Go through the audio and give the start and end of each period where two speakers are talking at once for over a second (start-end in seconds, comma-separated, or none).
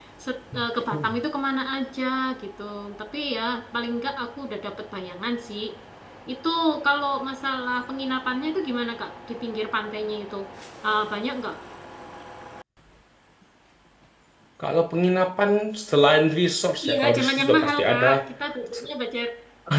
16.9-18.1